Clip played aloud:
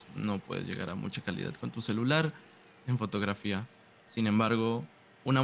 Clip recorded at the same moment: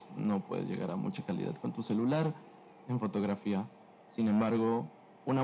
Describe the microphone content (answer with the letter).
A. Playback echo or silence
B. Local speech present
A